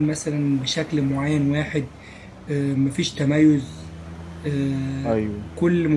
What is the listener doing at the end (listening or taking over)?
listening